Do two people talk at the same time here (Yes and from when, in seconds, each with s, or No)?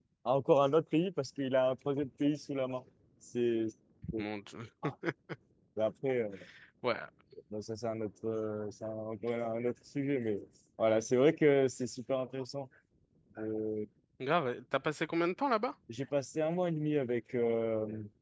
No